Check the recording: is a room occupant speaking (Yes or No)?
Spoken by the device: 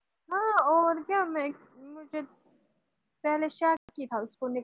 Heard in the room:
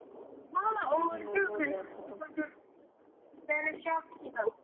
Yes